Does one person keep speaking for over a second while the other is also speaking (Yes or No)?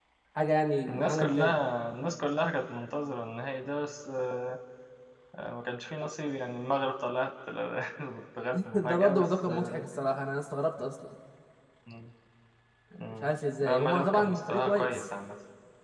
Yes